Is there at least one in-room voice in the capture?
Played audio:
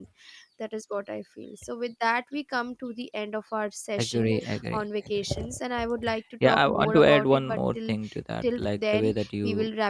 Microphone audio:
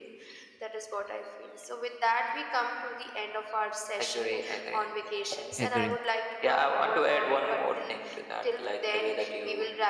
Yes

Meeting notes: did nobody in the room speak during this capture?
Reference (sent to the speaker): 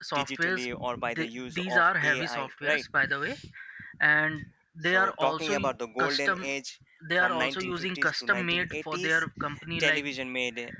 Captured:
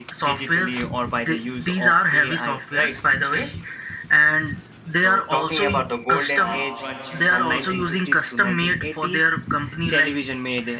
No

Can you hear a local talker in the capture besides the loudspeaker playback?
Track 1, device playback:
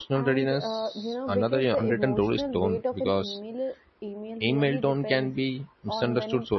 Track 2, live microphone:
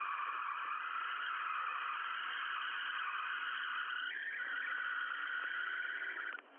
No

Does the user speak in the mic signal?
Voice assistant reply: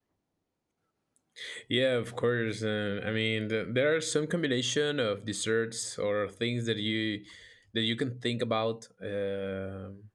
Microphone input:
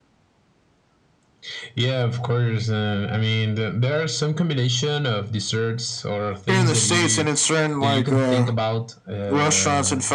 Yes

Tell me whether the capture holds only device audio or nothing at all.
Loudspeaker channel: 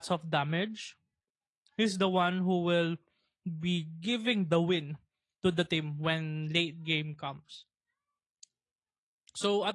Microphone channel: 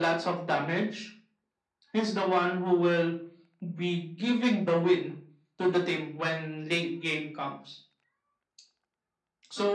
Yes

